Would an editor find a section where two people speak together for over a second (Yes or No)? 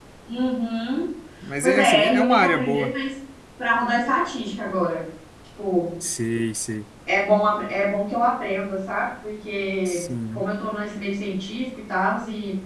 Yes